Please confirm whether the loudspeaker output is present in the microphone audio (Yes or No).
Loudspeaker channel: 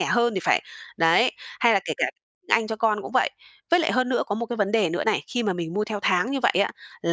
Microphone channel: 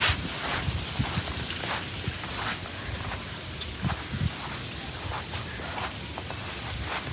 No